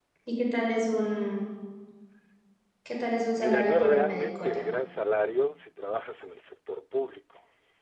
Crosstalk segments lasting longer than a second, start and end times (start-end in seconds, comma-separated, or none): 3.4-4.7